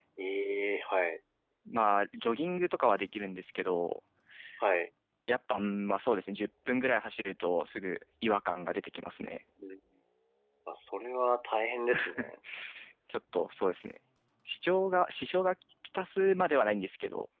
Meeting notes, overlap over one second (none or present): none